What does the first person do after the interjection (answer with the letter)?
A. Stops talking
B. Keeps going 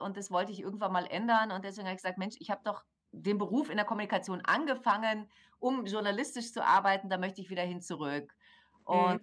A